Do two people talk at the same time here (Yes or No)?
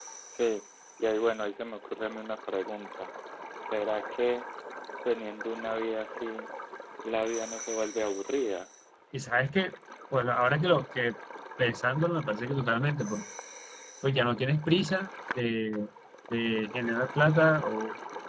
No